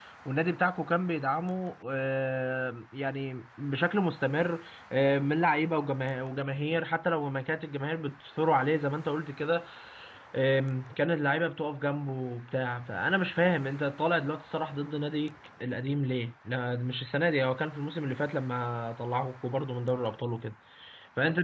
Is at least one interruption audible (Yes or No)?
No